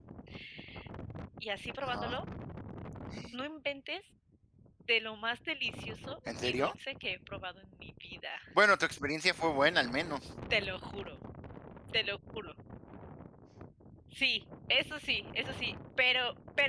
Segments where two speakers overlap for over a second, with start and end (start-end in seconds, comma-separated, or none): none